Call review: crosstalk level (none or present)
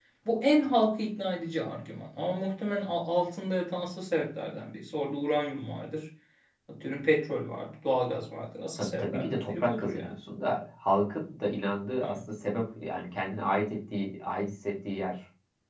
present